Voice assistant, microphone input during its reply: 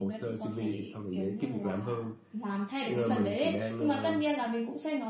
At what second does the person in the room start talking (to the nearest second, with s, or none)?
none